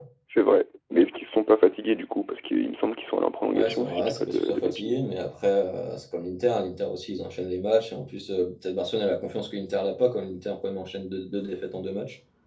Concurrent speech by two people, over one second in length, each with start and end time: 3.5-5.0

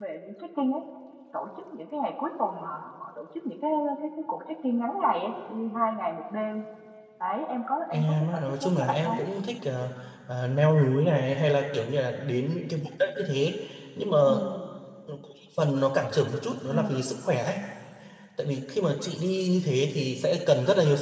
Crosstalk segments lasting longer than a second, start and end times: 7.9-9.2

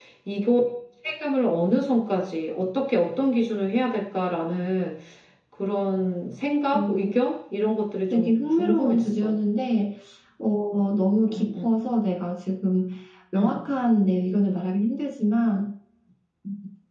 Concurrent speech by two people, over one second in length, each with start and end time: 8.1-9.3

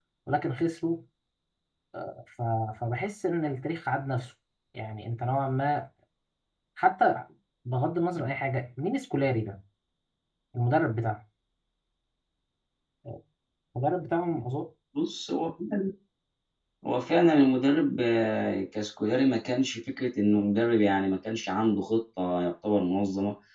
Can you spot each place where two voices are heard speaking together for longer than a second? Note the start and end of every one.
none

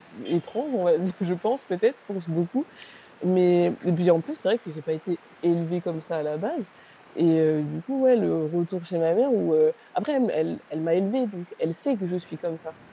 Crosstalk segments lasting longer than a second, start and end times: none

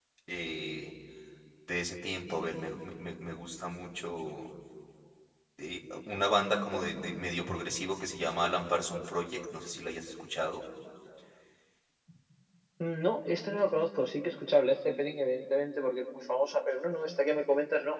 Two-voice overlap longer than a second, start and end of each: none

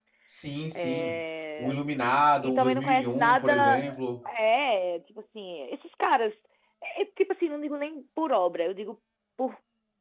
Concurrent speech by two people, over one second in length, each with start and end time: 2.4-3.8

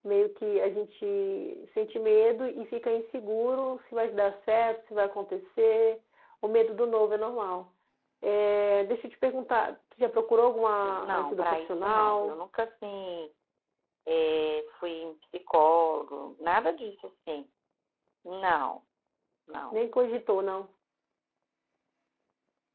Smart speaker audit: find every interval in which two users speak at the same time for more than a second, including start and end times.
11.0-12.4

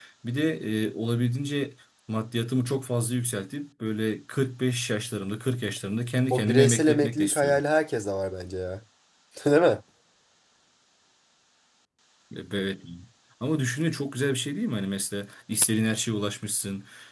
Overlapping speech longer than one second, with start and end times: 6.3-7.6

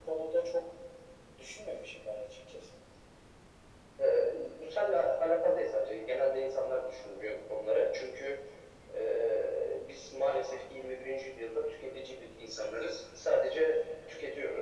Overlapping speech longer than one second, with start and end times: none

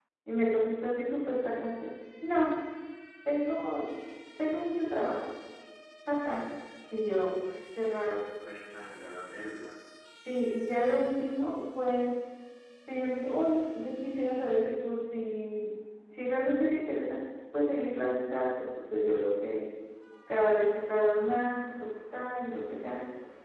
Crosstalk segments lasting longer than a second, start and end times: none

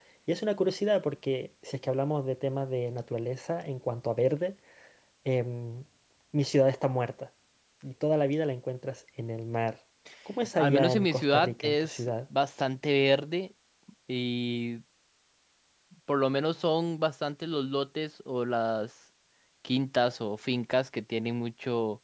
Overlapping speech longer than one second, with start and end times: 10.6-12.1

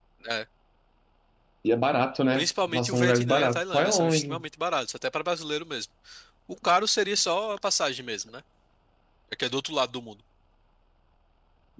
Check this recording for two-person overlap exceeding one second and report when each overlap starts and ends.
2.3-4.4

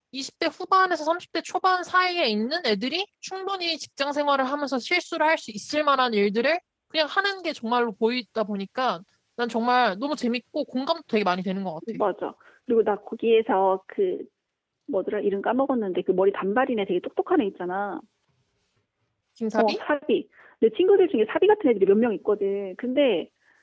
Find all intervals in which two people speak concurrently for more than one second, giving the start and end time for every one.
none

